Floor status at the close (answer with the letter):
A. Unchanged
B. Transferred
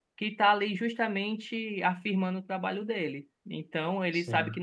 A